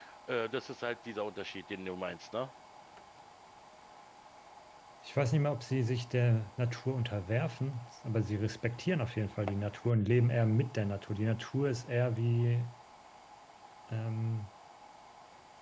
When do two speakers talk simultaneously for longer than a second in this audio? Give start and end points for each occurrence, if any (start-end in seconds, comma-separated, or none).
none